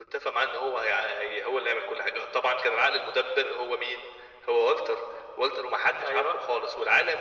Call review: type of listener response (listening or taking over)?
listening